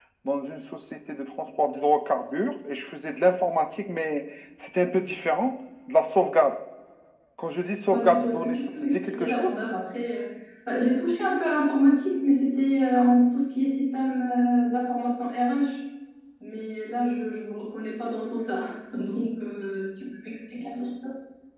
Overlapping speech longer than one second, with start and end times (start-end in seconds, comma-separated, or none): 7.9-9.5